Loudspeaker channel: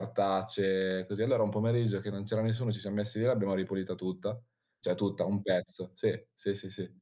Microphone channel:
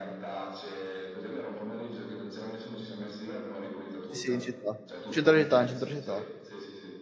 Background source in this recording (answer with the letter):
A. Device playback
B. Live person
A